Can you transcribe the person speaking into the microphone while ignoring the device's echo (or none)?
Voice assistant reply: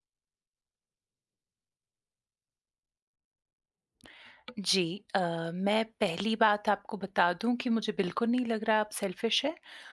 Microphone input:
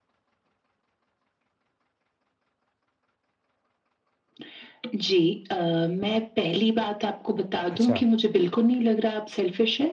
अच्छा।